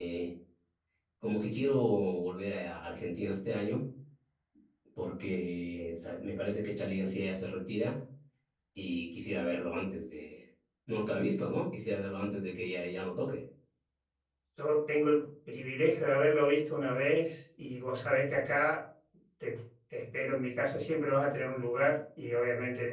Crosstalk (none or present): none